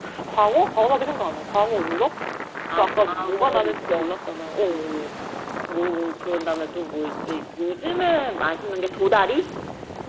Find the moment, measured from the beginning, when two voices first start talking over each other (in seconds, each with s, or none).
2.8 s